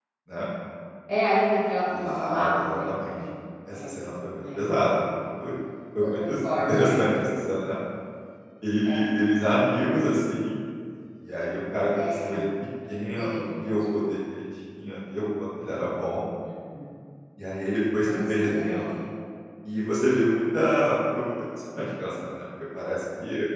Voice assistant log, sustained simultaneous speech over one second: present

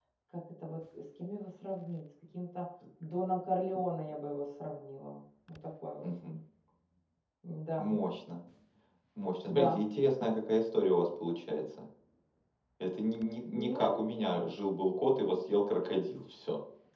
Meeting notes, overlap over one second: none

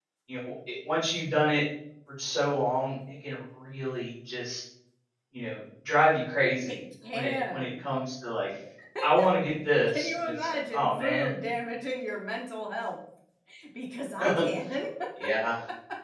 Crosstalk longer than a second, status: present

